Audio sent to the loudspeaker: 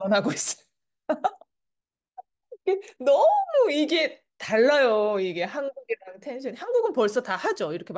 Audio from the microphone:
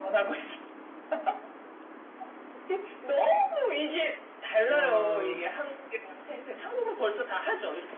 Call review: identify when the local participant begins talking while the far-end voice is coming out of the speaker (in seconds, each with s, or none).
4.7 s